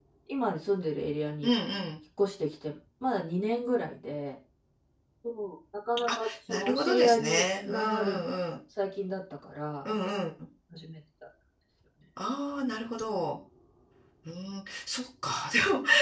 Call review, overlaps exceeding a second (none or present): present